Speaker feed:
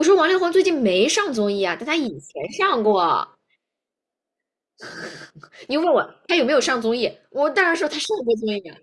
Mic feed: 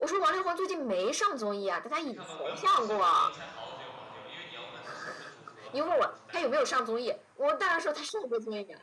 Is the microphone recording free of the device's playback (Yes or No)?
No